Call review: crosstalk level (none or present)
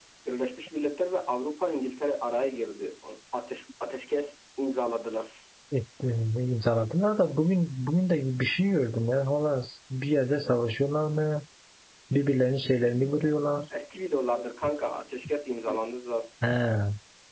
none